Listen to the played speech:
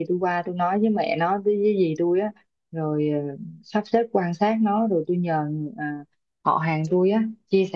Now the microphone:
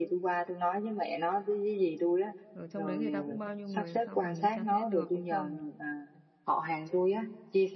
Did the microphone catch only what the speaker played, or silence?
No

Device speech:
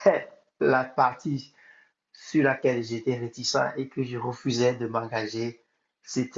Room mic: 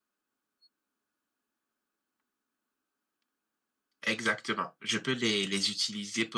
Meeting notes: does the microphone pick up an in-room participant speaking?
Yes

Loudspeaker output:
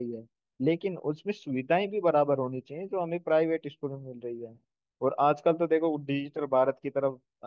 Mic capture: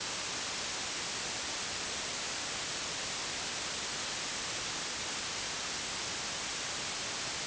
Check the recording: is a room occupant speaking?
No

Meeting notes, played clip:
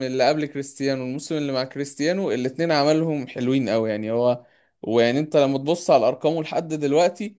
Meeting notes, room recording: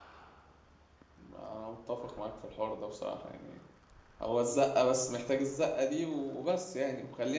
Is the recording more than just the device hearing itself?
Yes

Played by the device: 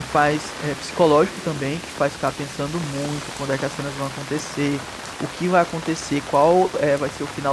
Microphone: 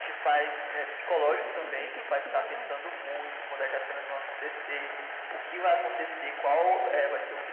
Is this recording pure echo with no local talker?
No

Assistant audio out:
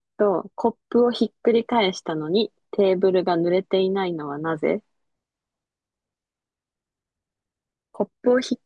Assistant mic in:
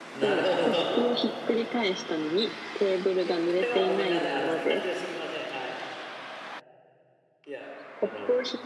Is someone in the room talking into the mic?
Yes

